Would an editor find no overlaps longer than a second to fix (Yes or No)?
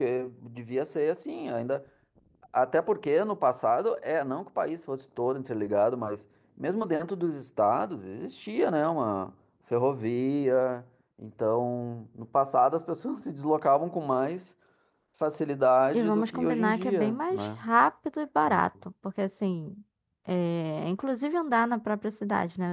No